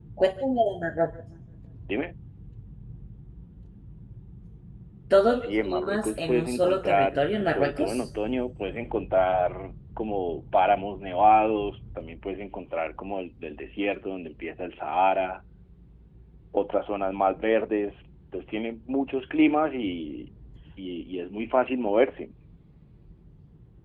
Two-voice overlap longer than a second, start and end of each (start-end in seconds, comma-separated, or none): 5.4-8.0